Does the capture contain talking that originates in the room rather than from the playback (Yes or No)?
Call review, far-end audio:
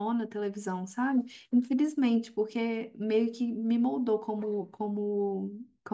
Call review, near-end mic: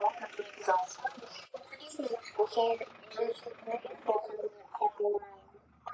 No